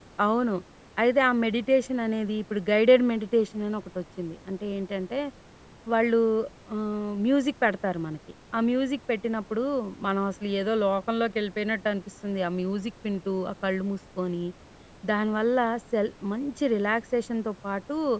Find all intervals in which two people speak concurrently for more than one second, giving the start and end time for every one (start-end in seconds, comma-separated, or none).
none